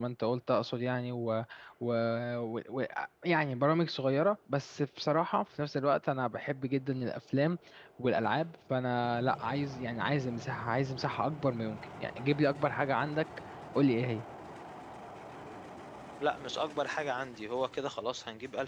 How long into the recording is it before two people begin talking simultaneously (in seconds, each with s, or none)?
none